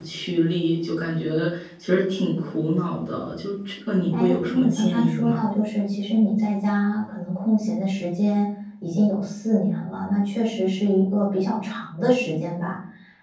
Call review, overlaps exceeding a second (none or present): present